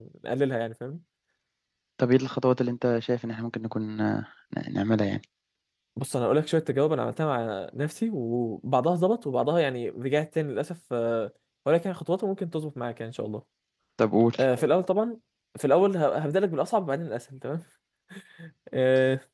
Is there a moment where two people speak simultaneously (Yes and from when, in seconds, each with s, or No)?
No